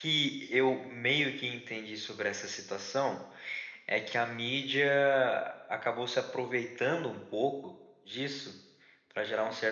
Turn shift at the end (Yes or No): No